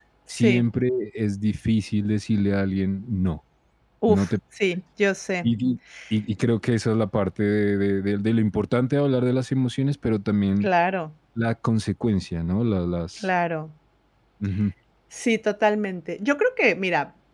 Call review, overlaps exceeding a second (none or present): none